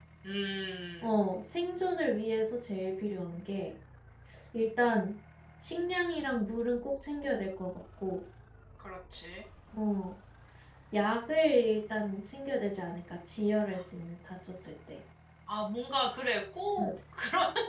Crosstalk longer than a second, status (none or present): none